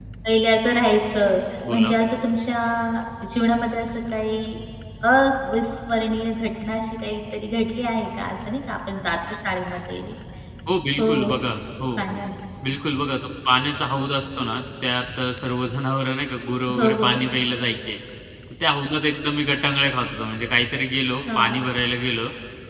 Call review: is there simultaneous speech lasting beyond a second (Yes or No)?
No